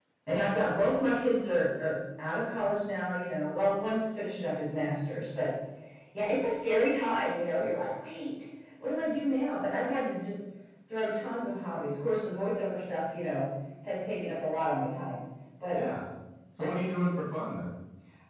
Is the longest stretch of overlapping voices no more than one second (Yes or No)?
Yes